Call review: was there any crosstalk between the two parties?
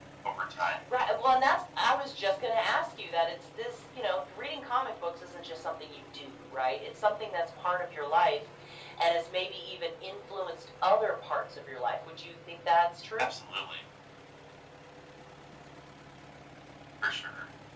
No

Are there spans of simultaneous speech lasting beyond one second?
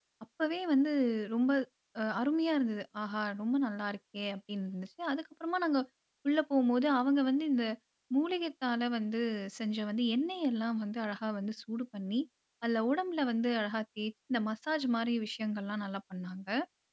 No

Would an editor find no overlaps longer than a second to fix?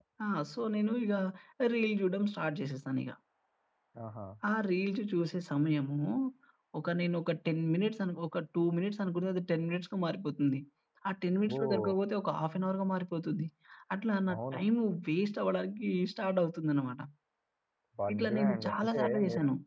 No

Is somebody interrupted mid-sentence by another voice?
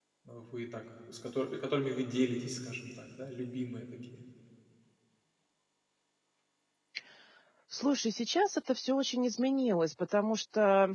No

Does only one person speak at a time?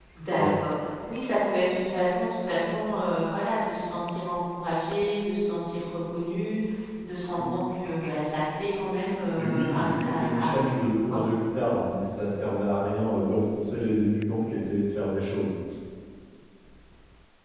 No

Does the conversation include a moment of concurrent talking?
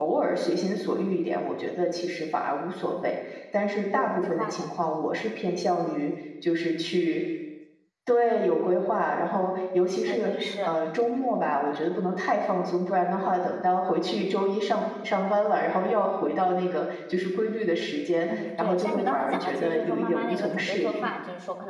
Yes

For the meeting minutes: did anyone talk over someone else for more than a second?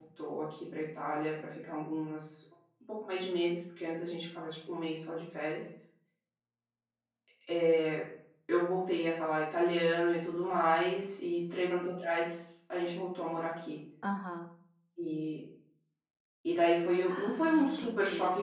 Yes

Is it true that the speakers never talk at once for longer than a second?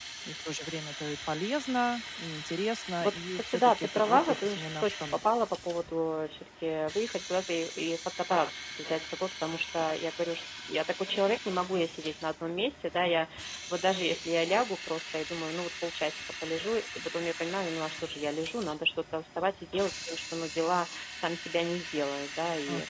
No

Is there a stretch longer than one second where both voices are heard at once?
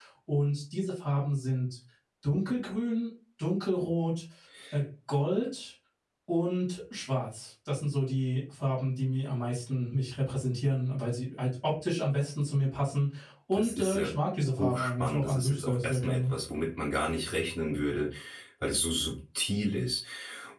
Yes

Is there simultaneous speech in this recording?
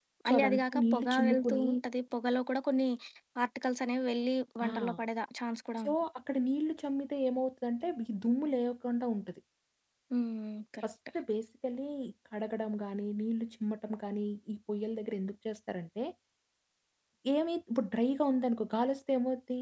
Yes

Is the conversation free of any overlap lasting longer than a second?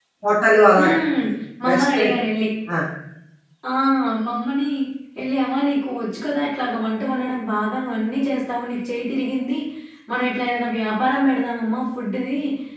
Yes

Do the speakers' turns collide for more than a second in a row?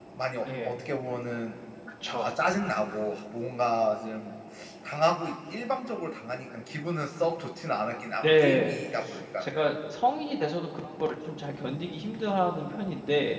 No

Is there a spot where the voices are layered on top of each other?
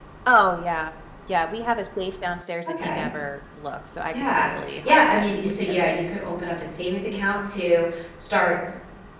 Yes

